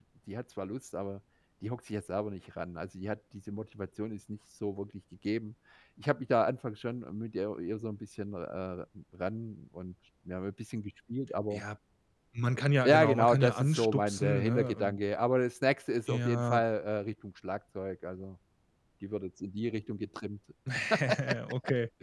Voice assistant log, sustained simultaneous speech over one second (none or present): present